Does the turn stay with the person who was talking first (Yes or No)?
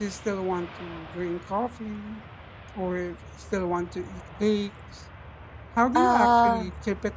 Yes